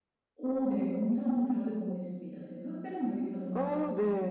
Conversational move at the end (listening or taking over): taking over